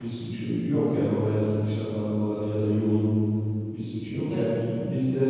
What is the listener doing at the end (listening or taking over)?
listening